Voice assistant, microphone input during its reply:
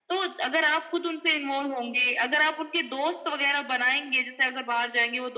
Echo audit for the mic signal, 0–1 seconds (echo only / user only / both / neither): echo only